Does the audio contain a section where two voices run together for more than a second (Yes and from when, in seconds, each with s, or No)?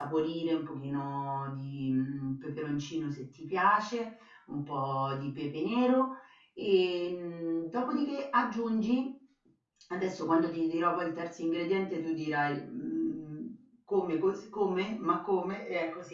No